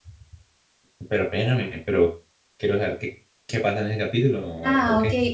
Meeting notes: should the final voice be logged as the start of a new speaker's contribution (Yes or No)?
Yes